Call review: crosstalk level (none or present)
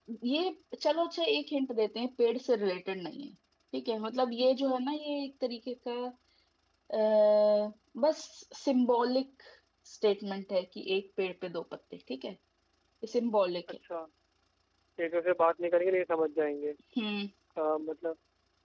none